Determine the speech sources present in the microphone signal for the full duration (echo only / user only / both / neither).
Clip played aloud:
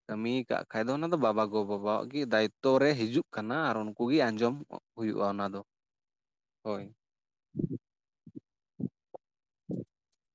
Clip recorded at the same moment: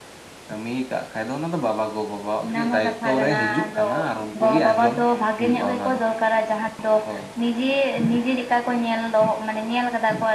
both